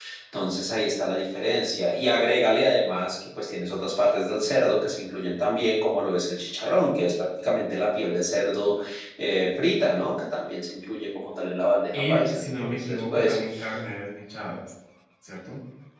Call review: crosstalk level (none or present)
present